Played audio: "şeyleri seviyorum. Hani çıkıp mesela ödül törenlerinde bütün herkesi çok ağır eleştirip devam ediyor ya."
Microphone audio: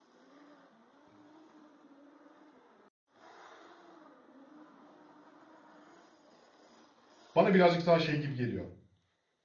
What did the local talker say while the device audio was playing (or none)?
Bana birazcık daha şey gibi geliyor.